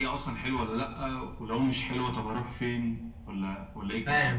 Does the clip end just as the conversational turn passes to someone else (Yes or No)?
Yes